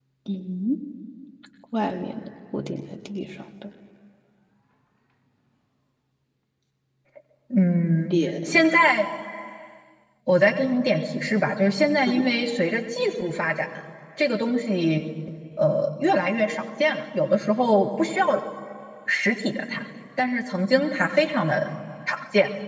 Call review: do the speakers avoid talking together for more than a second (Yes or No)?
Yes